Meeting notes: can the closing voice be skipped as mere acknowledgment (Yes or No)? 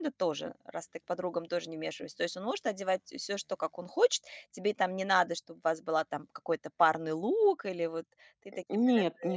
No